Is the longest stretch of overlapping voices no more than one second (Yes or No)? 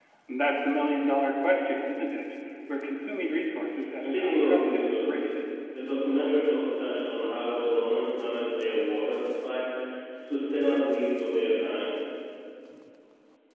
No